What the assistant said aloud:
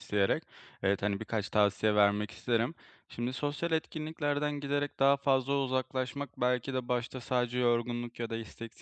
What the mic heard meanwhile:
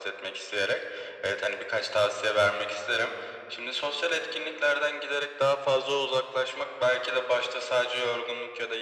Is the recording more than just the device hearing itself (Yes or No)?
No